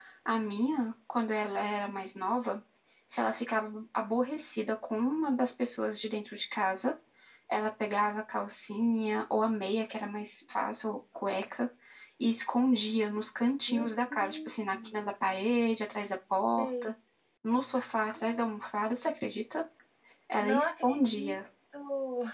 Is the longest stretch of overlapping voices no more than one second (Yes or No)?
No